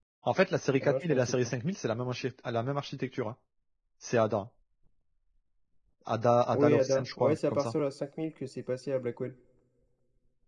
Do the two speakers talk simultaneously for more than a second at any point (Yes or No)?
Yes